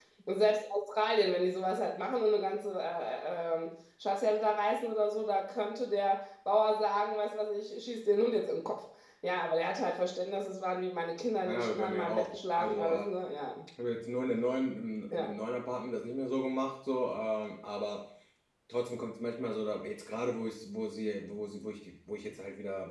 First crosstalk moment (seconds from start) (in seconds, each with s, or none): 11.4 s